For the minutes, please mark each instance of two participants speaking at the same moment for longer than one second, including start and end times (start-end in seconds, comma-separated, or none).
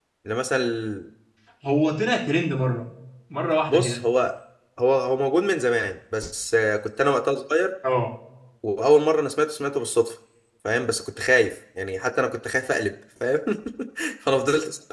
none